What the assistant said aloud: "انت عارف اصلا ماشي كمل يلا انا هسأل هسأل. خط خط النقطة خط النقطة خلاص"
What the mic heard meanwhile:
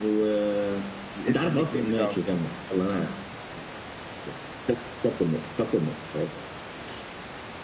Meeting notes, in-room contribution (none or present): present